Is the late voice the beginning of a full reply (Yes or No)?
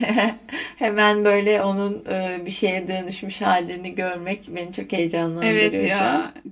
Yes